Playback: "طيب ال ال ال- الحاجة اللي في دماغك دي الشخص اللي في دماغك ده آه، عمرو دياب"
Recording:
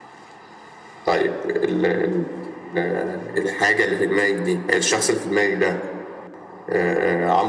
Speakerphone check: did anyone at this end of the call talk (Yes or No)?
No